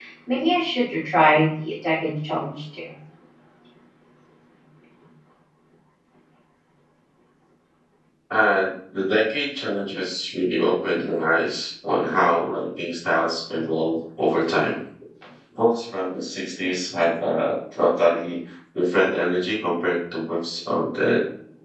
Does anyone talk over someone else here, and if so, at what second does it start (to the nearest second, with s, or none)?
none